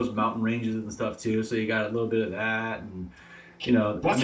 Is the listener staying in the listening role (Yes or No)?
No